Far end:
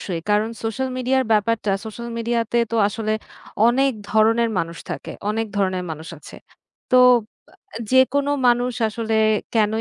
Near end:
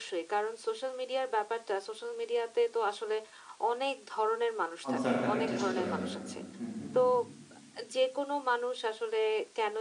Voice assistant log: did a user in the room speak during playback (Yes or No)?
Yes